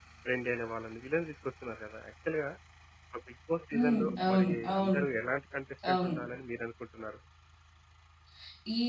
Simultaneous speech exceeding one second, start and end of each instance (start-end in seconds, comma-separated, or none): 3.7-5.0